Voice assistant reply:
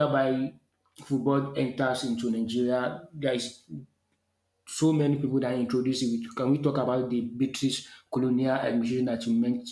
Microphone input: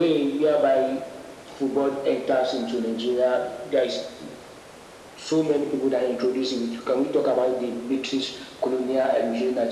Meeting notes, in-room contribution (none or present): none